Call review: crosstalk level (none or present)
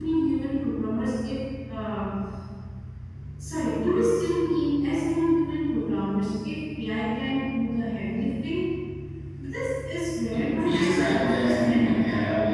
present